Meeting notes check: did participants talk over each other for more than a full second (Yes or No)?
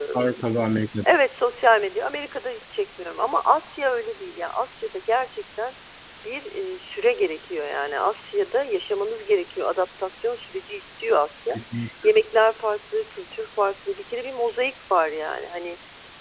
No